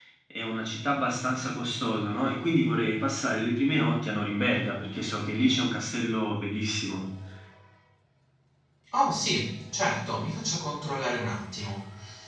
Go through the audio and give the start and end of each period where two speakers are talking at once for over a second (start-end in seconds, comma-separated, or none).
none